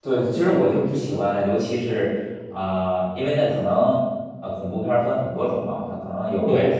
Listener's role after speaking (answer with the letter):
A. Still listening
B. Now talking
A